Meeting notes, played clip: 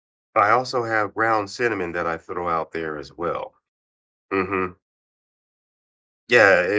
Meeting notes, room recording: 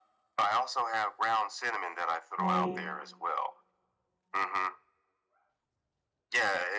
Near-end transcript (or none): like